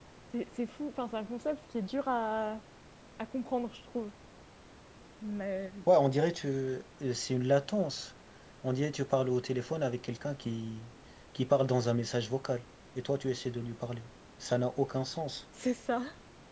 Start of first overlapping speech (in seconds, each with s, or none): none